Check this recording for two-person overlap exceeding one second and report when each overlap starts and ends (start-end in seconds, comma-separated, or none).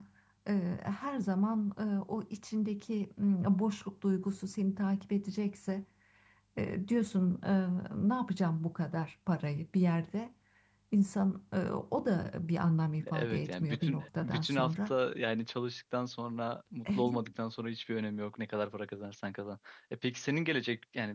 13.1-14.9